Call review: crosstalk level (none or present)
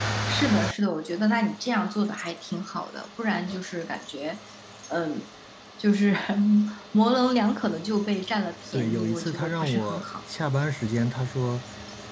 present